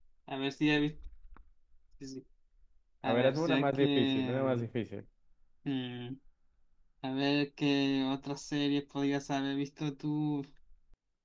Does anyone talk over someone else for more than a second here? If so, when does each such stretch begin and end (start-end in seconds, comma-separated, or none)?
3.0-4.7